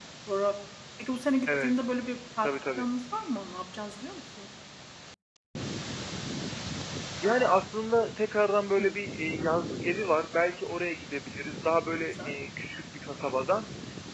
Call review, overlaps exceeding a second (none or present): none